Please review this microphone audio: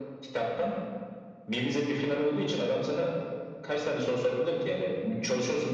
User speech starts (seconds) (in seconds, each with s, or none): none